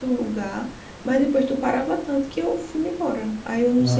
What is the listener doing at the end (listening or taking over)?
taking over